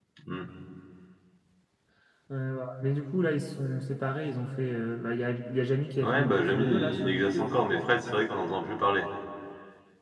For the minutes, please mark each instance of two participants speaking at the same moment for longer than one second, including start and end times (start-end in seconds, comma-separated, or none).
6.0-7.5